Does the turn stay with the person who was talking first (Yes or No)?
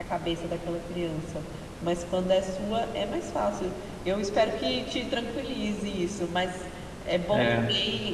Yes